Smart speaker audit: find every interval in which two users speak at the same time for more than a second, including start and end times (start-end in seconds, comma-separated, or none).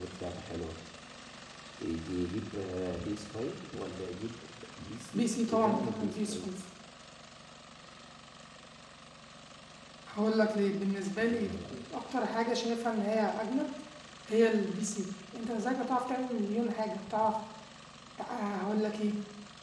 5.3-6.5